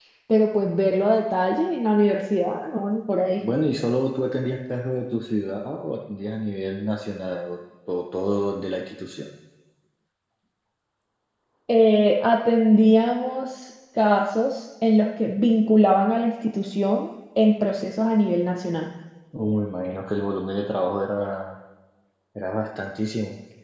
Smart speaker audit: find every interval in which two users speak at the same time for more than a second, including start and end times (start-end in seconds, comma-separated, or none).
none